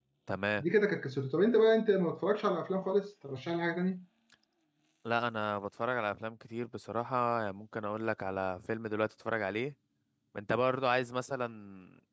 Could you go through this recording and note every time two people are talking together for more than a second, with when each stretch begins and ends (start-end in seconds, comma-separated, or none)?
none